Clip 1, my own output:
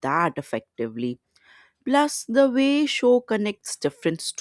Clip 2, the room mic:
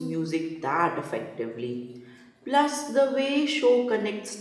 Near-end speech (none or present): none